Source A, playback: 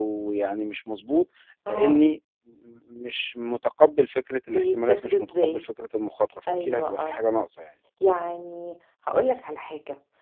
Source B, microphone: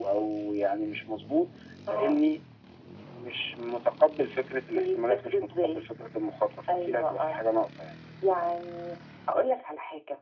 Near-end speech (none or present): none